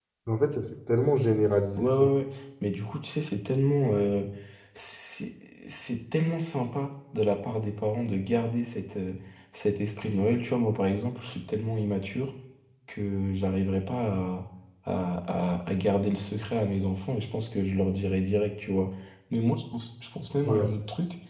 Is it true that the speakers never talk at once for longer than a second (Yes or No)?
Yes